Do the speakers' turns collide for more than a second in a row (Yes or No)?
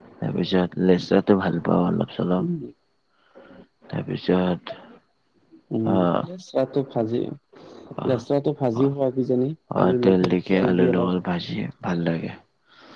Yes